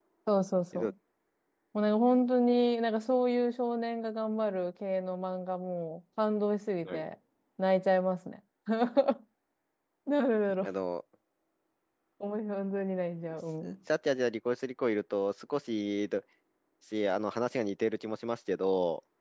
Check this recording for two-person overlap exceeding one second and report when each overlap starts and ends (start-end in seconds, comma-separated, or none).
none